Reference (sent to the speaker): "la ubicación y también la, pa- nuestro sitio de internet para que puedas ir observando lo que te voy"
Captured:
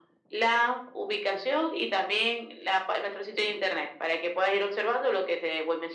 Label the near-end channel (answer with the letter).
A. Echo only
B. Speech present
A